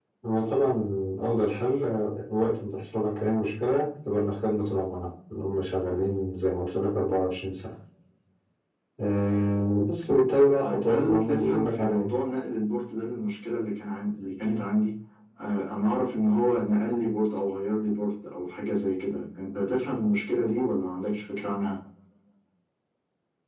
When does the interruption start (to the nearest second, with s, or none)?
11 s